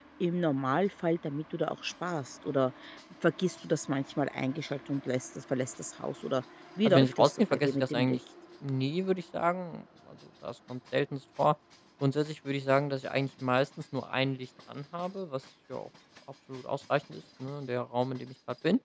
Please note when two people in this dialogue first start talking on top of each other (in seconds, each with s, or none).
6.8 s